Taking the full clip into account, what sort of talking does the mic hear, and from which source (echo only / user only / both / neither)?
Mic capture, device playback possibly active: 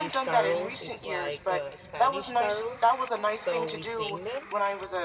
both